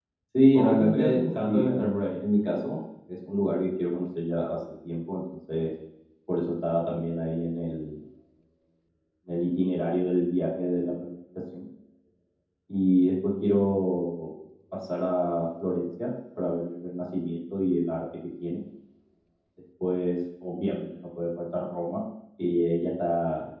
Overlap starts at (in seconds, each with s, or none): 0.6 s